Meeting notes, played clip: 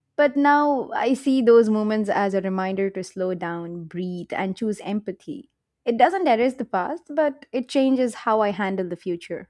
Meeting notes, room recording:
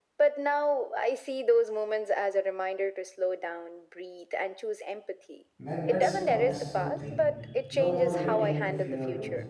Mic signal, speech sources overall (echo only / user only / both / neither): both